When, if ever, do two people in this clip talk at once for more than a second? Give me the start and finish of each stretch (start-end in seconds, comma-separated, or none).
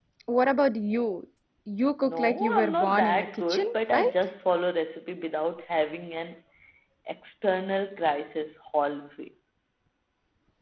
2.0-4.1